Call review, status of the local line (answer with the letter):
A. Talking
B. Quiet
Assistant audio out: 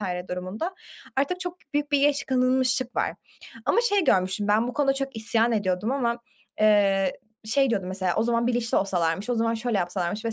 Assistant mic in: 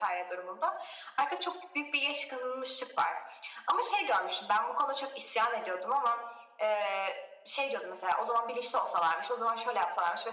B